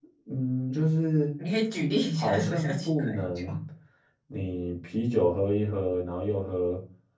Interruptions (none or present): present